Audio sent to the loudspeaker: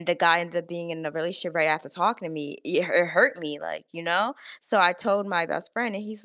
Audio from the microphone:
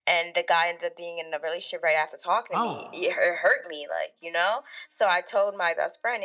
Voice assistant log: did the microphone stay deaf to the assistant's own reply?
No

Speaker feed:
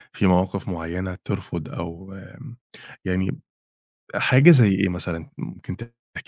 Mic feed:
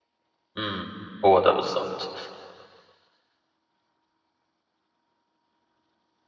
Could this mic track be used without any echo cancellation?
Yes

